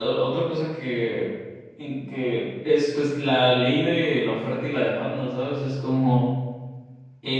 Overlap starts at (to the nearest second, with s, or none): none